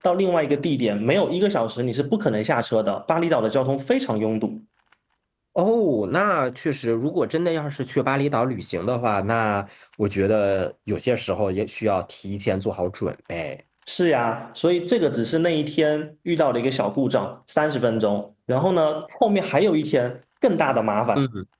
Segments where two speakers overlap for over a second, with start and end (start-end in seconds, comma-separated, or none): none